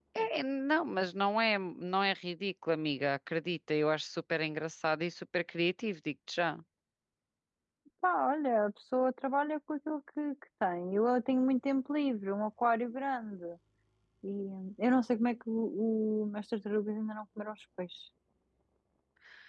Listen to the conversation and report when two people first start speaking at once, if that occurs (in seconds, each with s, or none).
none